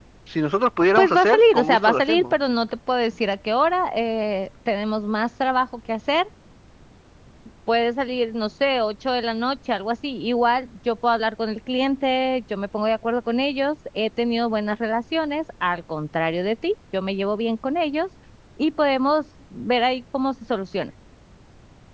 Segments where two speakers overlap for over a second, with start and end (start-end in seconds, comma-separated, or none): 1.0-2.3